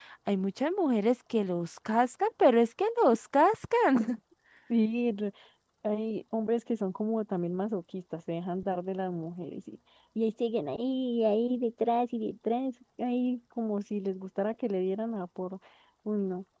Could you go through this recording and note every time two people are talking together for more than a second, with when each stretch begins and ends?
none

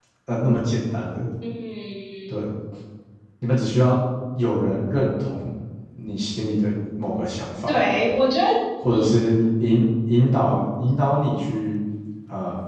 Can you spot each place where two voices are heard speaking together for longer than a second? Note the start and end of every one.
none

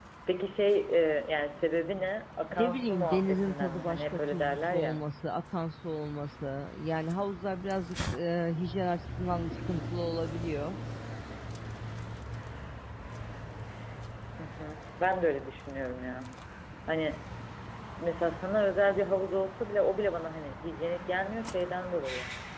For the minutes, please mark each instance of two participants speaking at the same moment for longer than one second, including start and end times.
2.6-5.0

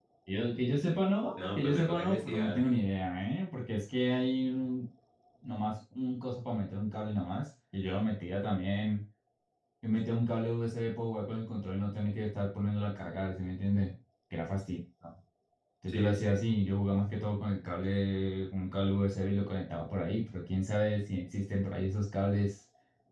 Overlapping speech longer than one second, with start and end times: 1.4-2.6

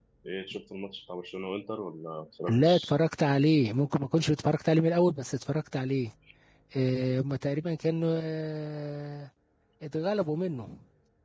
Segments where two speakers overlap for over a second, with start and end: none

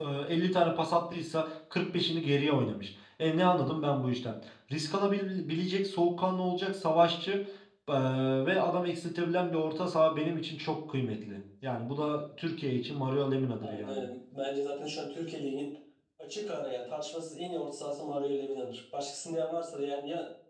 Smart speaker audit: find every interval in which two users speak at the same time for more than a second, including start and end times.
none

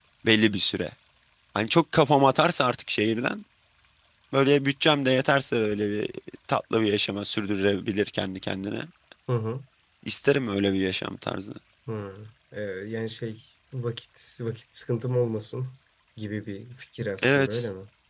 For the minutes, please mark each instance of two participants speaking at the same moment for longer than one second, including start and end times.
none

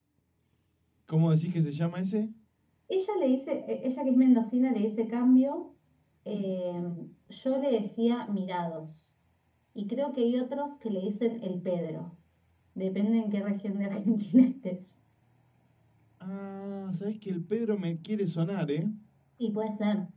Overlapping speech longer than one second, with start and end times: none

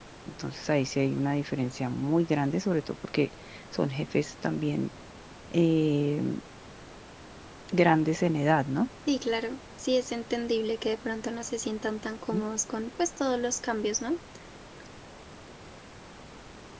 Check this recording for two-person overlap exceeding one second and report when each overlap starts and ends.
none

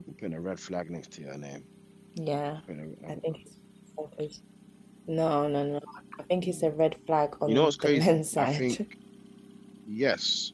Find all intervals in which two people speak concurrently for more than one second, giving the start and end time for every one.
7.5-8.8

